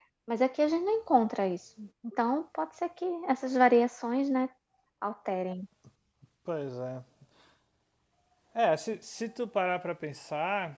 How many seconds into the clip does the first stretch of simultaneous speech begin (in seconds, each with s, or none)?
none